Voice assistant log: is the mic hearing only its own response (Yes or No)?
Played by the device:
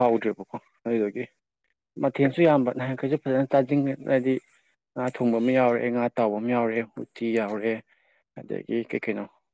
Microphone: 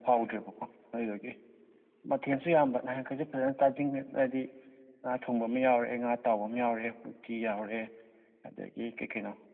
Yes